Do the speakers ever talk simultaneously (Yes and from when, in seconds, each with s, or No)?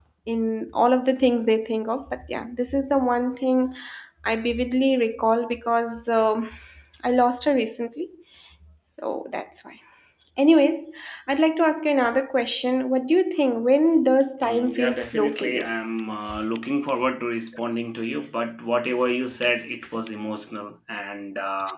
Yes, from 14.4 s